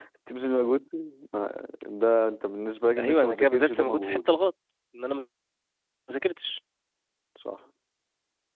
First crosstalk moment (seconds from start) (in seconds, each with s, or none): 3.0 s